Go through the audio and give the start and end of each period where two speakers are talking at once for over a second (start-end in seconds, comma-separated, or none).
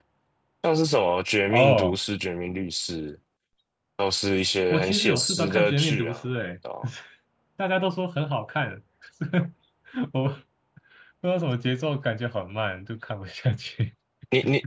4.7-6.2